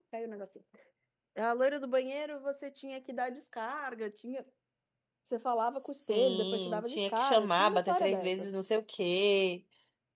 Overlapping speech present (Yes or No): Yes